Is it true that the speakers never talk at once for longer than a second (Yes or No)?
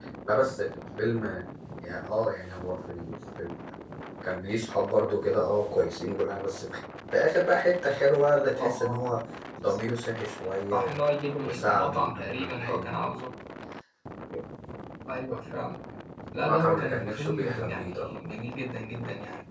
No